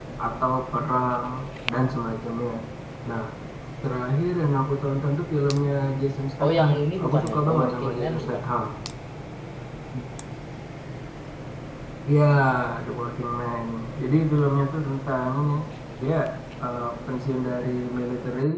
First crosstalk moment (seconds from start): 6.4 s

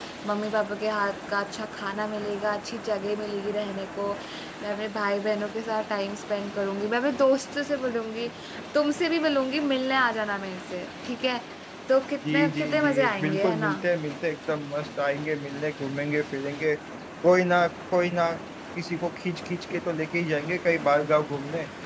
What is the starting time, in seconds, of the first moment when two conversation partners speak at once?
12.3 s

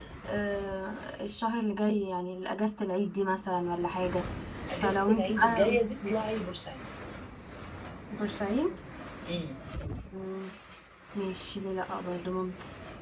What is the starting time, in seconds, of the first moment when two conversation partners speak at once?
4.7 s

